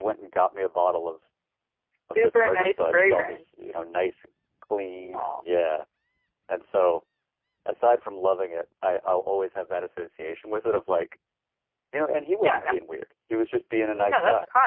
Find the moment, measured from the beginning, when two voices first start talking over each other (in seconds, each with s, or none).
2.1 s